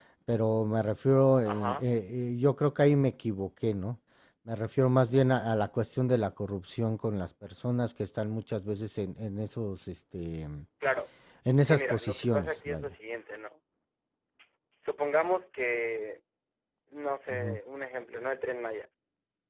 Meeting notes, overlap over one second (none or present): present